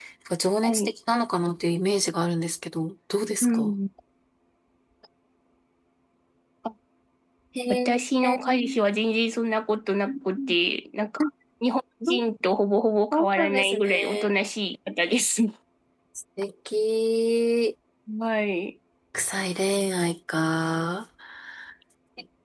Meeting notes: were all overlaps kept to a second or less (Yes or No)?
No